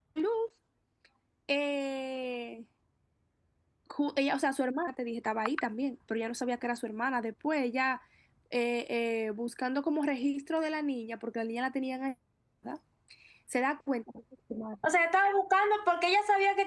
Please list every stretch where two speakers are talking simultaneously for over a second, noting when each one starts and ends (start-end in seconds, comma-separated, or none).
none